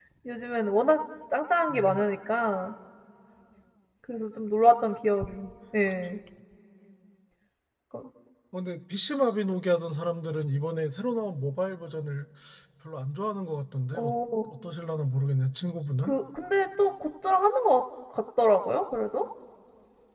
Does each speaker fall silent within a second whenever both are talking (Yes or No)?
Yes